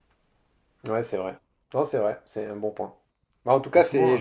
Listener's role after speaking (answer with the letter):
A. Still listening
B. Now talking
A